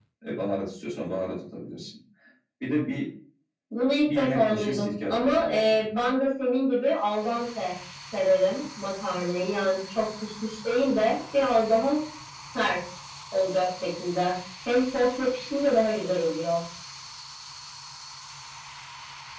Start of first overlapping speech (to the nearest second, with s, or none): 4 s